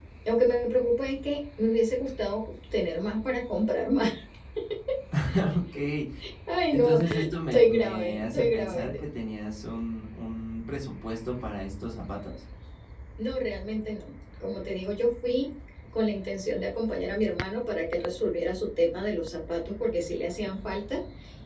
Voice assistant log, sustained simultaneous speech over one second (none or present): present